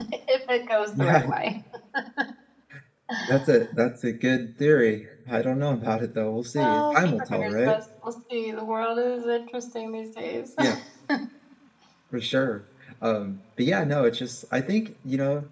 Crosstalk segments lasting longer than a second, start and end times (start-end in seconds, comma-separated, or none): 6.6-7.8